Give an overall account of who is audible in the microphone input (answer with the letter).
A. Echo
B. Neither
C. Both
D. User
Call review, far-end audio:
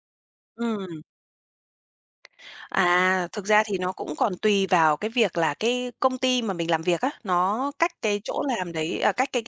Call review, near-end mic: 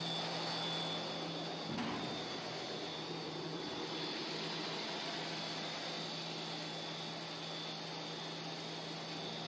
B